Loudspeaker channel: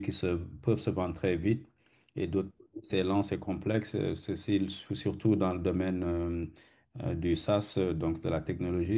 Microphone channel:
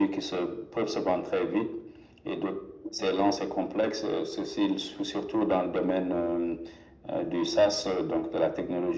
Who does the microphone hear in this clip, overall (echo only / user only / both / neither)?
echo only